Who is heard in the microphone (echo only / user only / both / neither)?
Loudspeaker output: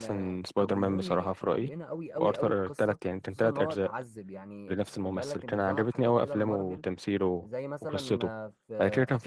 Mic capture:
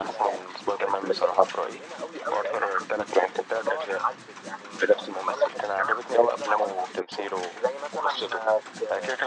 echo only